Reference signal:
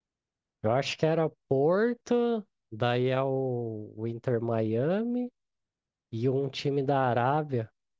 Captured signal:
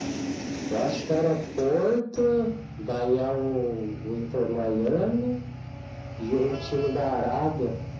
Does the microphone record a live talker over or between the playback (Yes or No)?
No